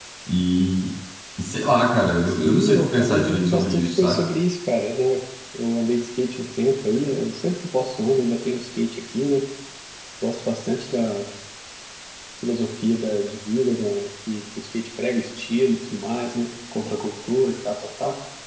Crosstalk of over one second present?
Yes, from 2.3 s

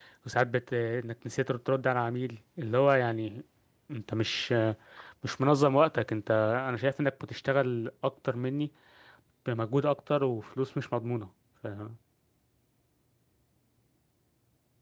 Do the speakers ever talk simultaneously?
No

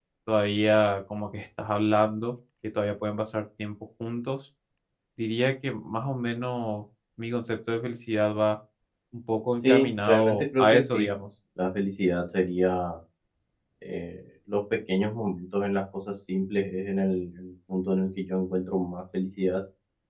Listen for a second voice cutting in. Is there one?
Yes, from 9.7 s

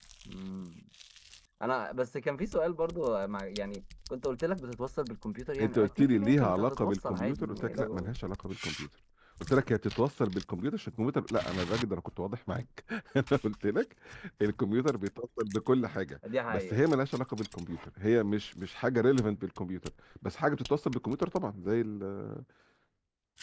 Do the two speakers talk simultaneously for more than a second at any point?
Yes, from 5.6 s

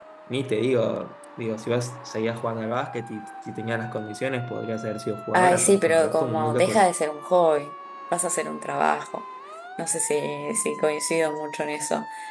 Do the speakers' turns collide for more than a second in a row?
Yes, from 5.3 s

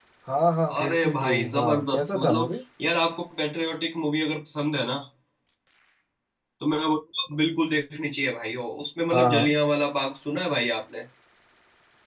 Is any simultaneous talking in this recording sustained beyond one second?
Yes, from 0.8 s

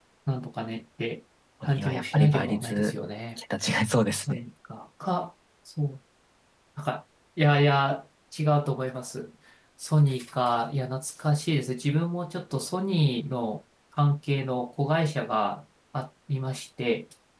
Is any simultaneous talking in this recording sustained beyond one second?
Yes, from 1.6 s

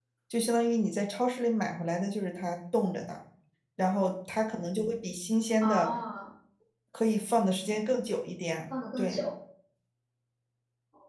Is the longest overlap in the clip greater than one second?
No

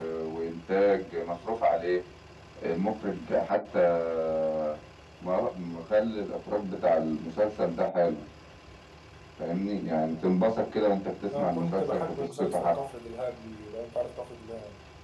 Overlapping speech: Yes, from 11.3 s

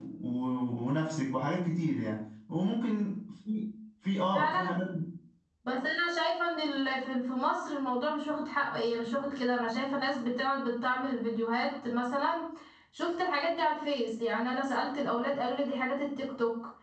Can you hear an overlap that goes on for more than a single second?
No

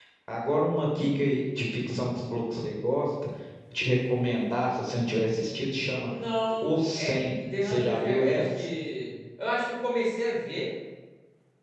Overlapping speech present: Yes, from 6.6 s

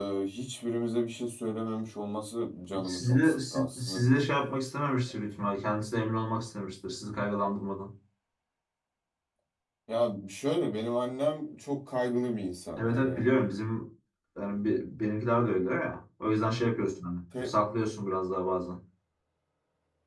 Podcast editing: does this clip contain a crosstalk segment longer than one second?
Yes, from 2.8 s

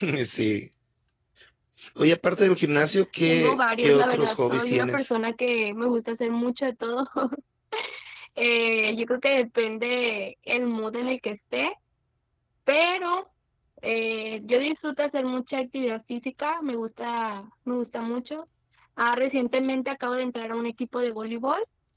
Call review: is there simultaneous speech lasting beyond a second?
Yes, from 3.2 s

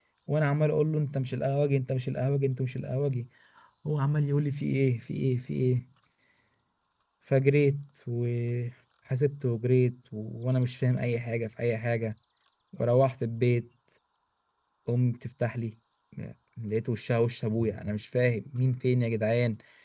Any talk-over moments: No

